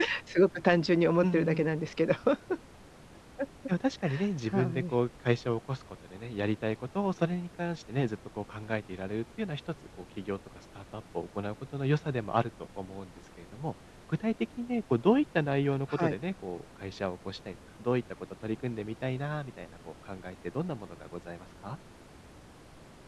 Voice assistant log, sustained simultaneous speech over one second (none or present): none